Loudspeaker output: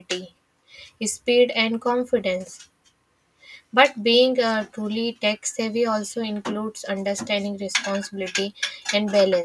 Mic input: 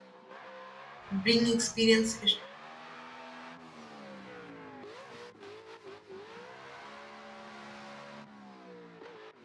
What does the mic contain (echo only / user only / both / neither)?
user only